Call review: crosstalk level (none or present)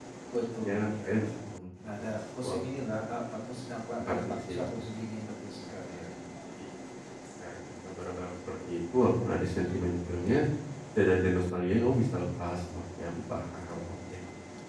present